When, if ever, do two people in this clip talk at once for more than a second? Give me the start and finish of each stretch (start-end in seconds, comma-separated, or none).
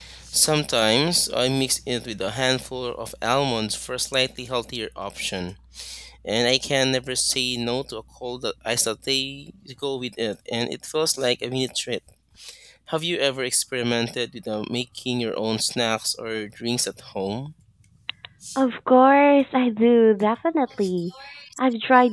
none